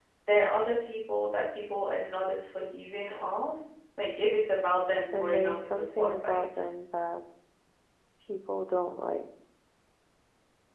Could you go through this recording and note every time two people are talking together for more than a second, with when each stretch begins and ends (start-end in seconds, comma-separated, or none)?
5.2-6.6